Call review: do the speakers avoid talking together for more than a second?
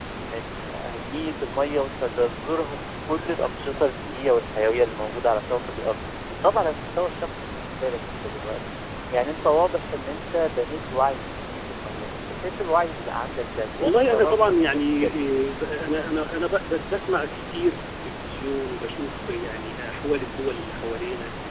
No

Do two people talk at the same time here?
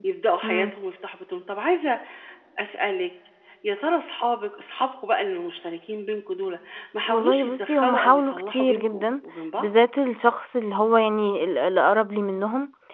Yes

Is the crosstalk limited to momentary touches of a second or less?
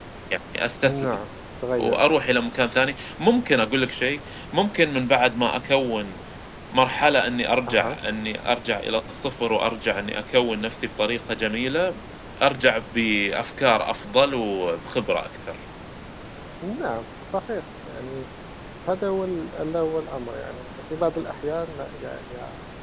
Yes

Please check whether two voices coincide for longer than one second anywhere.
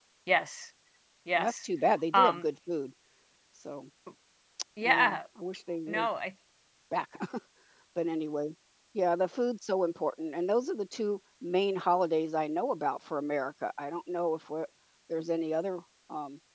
No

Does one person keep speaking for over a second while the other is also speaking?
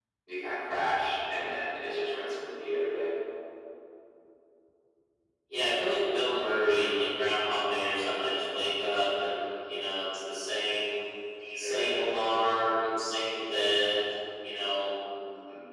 No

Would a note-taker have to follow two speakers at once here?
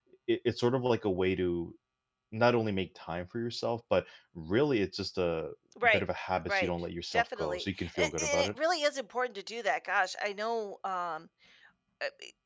Yes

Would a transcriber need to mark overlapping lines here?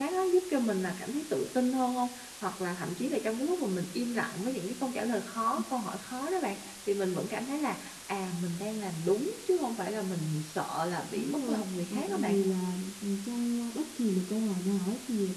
Yes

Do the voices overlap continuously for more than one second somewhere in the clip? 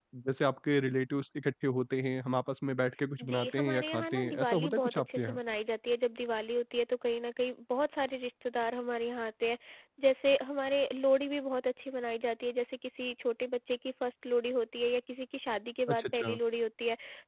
Yes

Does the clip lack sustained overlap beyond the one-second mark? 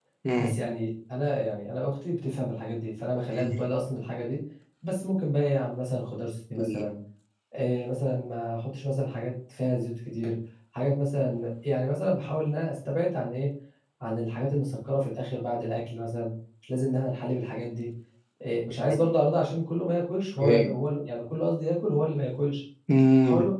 Yes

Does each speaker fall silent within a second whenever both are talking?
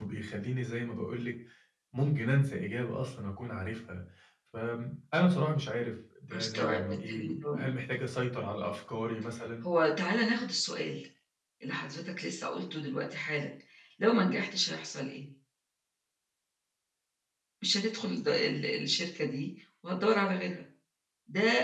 No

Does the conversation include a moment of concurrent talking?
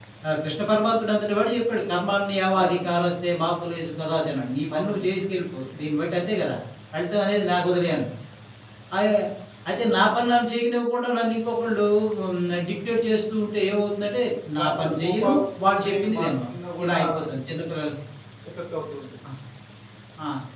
Yes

